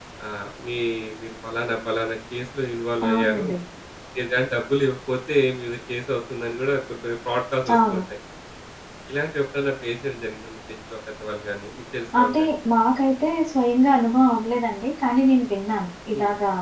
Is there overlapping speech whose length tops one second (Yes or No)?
No